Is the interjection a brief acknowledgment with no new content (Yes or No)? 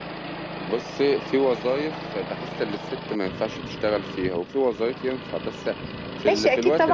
No